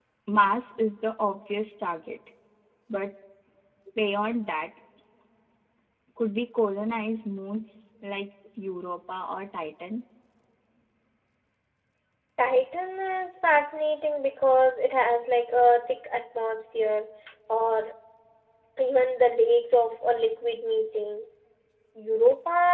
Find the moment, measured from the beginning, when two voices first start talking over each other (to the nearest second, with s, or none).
none